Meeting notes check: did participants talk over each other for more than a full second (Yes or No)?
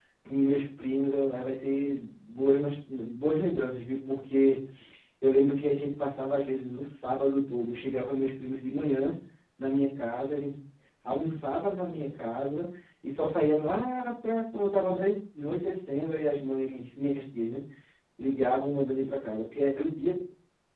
No